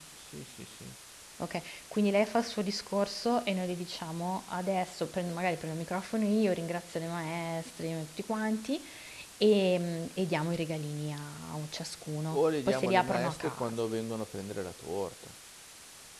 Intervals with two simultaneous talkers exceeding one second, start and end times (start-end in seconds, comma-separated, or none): 12.3-13.7